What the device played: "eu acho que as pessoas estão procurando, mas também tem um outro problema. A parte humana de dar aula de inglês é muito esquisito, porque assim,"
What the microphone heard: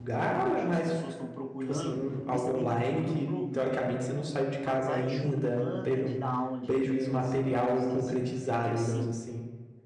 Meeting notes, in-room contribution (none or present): present